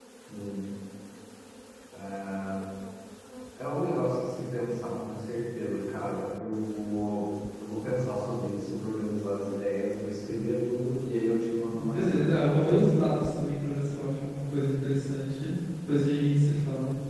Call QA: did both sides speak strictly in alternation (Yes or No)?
No